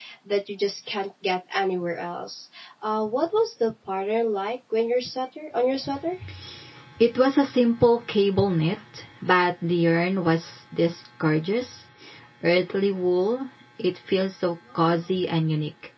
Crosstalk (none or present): none